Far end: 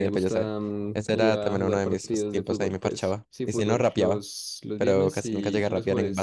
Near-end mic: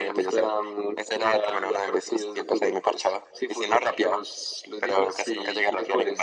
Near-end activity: none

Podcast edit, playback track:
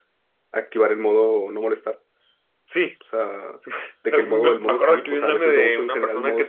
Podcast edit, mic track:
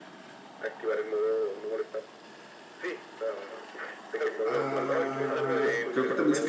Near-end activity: present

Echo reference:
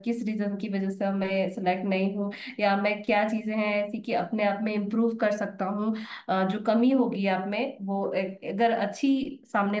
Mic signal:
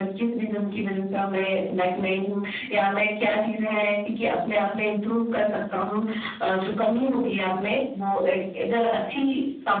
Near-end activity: none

